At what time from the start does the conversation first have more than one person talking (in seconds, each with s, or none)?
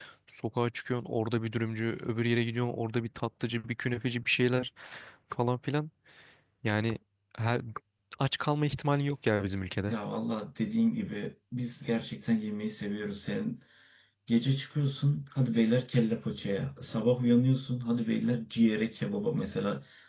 none